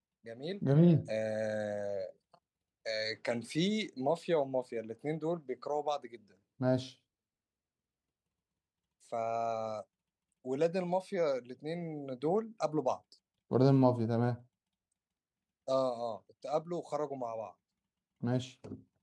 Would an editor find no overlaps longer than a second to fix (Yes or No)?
Yes